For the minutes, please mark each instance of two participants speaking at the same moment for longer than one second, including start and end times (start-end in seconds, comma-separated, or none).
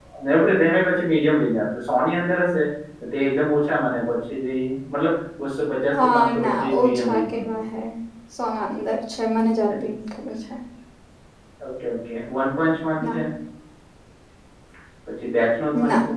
6.0-7.5